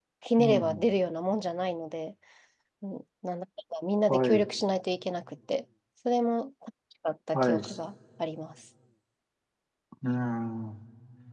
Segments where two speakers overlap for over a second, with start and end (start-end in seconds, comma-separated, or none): none